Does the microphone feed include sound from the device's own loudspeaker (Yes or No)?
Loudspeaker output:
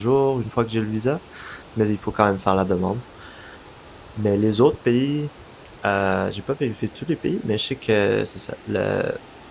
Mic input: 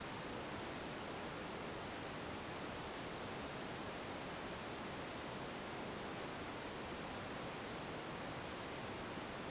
No